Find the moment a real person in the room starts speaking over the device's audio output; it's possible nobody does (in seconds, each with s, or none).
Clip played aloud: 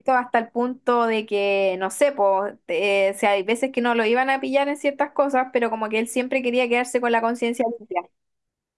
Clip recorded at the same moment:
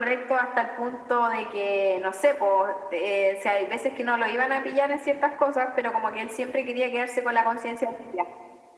none